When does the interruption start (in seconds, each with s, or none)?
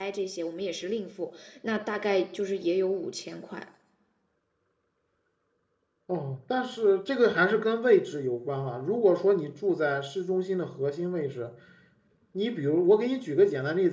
none